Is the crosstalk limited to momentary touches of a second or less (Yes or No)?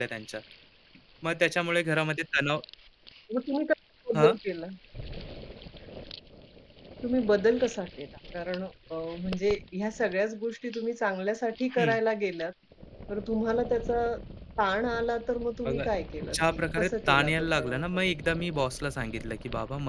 No